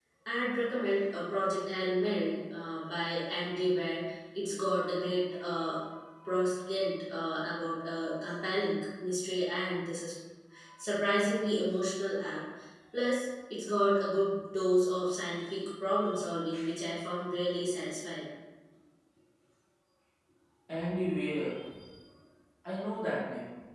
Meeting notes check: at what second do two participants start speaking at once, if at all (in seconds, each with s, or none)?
none